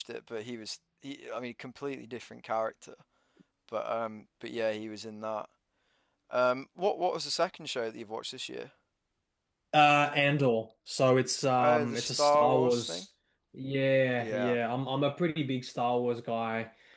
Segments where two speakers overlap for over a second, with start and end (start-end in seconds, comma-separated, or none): 11.6-13.0